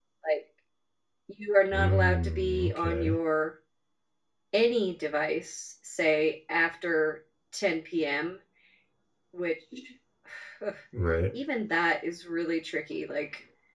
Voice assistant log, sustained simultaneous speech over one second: present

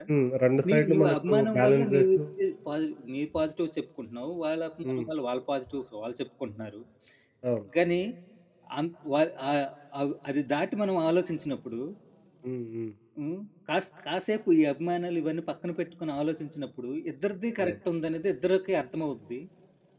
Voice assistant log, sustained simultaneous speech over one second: present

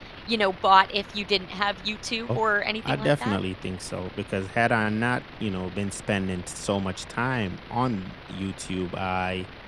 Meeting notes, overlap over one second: none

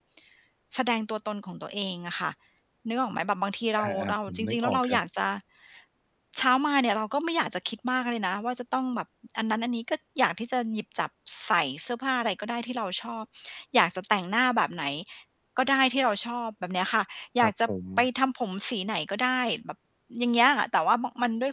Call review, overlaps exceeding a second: present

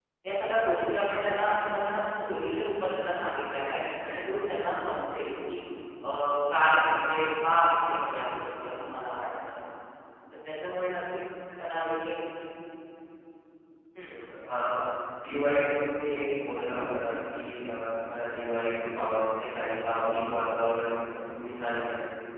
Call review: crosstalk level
none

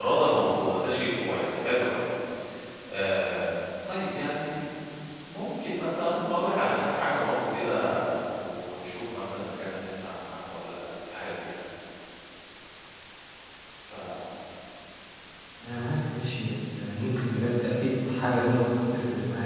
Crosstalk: none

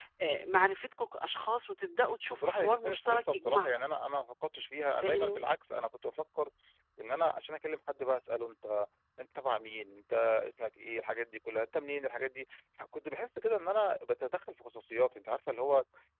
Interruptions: present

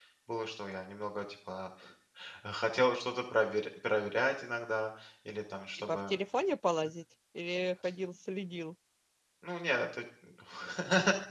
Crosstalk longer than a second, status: none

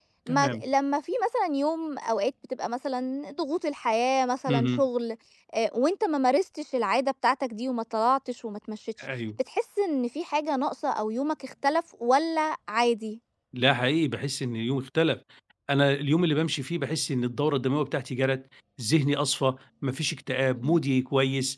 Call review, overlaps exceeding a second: none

